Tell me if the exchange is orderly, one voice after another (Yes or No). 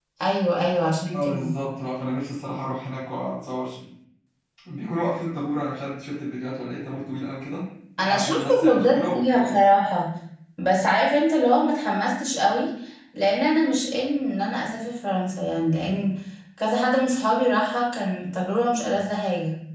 No